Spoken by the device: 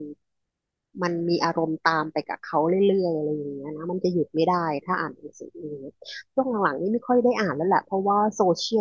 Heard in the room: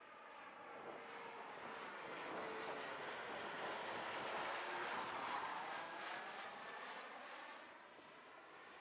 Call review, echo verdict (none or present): none